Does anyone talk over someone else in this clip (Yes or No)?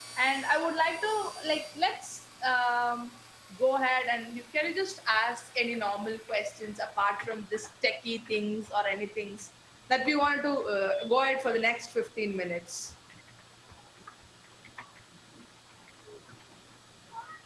No